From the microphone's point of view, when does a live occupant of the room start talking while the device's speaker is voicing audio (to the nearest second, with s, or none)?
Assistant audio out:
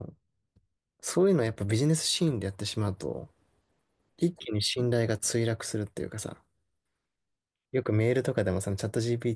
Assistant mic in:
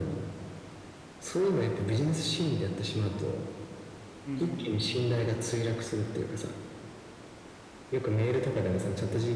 4 s